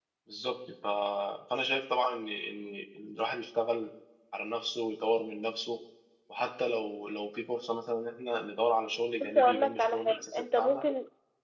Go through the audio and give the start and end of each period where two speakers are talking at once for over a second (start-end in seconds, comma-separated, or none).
9.2-10.8